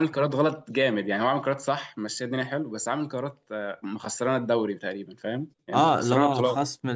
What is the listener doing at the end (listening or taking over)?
taking over